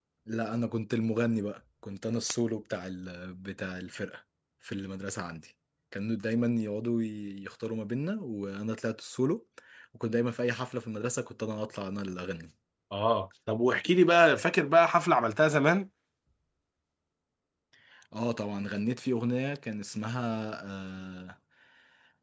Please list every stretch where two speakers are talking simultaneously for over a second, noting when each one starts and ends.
none

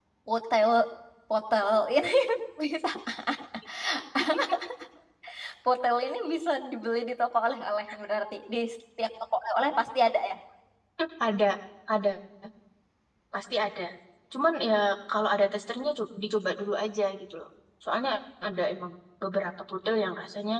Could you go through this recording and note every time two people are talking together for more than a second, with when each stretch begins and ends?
none

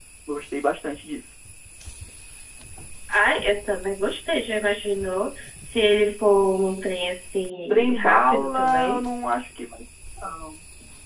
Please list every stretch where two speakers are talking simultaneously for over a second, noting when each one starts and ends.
7.7-9.0

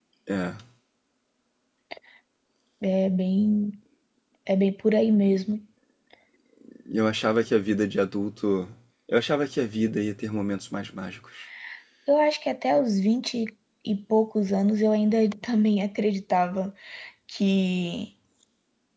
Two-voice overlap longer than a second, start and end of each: none

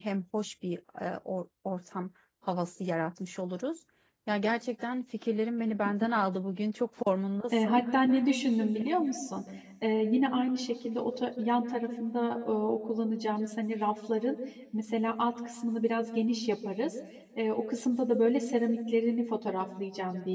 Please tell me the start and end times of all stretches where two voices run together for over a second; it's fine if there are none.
none

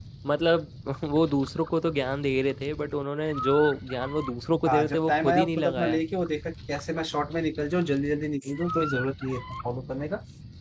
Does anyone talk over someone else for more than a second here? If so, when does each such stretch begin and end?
4.6-6.0

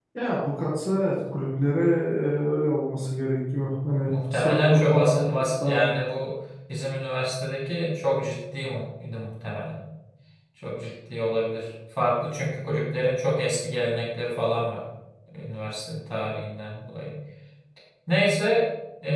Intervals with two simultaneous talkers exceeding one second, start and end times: 4.1-5.9

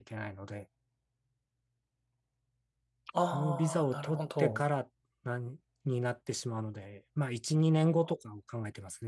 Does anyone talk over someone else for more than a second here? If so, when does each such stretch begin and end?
3.3-4.6

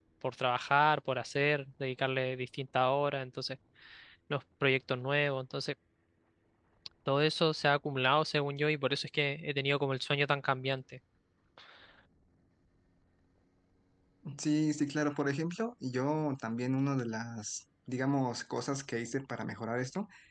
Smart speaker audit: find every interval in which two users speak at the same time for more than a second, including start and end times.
none

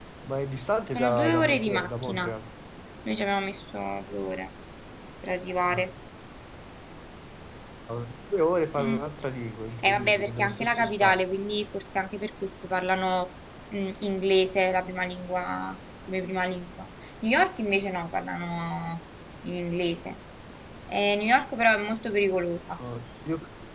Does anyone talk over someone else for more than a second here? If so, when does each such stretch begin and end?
1.0-2.3, 9.8-11.2

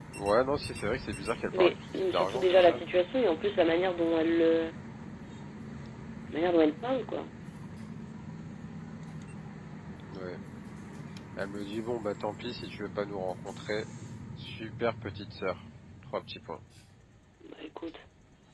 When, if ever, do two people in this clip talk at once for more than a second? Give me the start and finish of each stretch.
1.5-2.8

